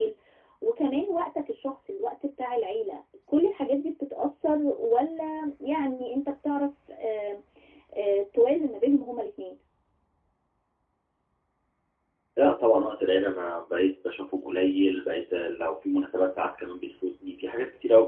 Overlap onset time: none

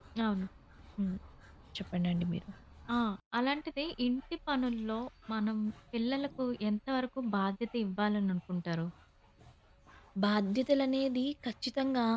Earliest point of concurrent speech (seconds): none

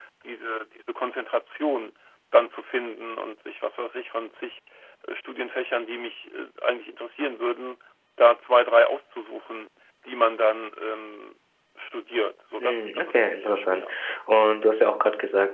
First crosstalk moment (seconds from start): 12.6 s

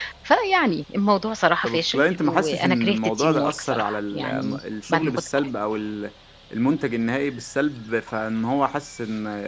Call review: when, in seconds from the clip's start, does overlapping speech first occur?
1.6 s

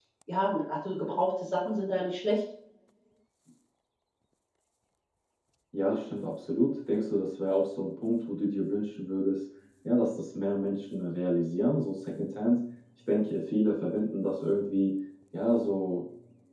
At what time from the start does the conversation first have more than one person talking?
none

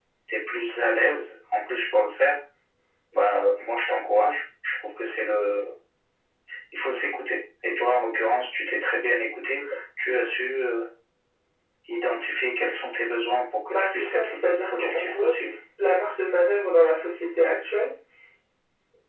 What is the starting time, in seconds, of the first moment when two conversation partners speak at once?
13.7 s

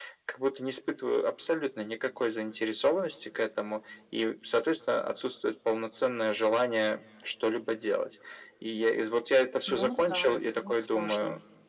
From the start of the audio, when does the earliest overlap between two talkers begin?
9.7 s

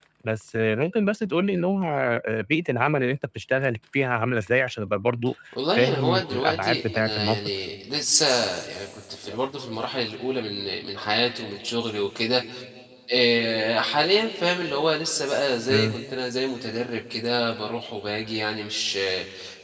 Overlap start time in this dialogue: 5.5 s

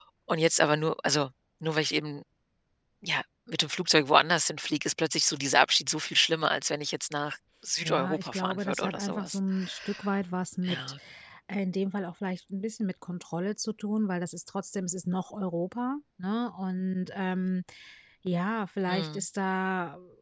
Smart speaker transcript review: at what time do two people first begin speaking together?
7.8 s

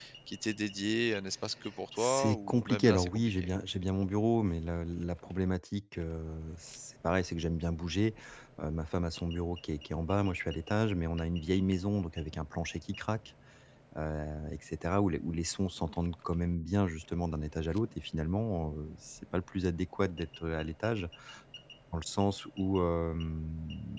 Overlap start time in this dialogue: 2.0 s

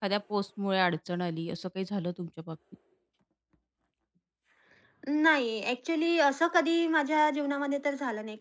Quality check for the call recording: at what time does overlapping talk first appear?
none

